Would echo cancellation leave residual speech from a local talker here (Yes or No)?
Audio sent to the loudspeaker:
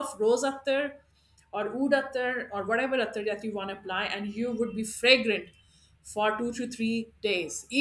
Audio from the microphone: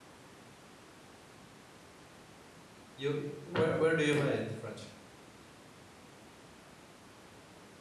Yes